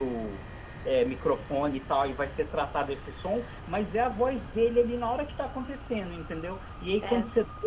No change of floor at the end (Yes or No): Yes